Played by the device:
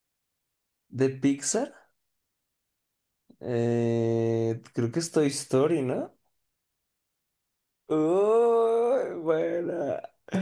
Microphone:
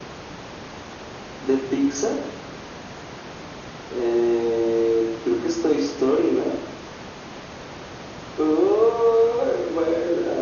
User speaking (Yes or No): No